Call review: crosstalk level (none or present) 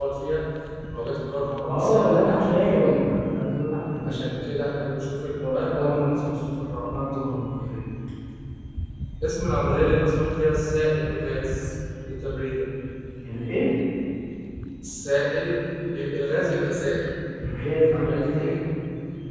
present